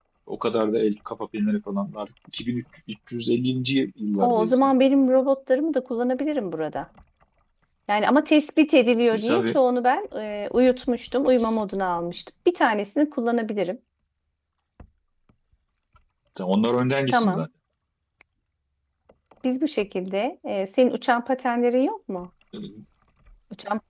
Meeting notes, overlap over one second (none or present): none